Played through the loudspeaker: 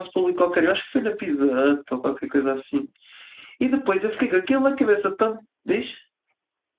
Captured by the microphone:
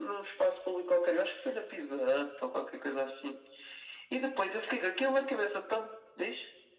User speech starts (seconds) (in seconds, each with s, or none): none